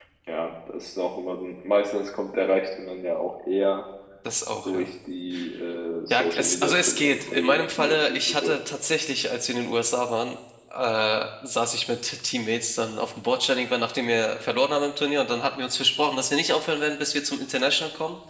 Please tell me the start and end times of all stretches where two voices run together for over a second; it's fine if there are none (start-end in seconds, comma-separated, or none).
6.1-8.6